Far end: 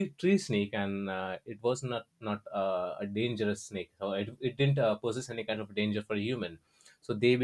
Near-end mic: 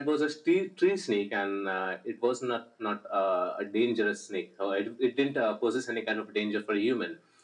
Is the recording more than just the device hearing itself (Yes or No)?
No